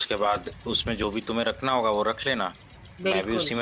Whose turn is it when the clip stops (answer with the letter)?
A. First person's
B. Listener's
A